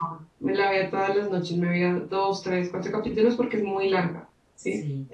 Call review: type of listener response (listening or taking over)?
listening